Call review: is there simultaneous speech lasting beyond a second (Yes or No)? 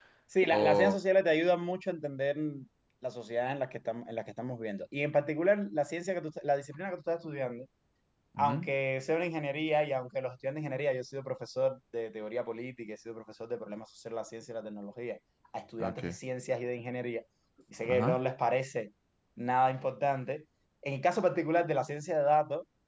No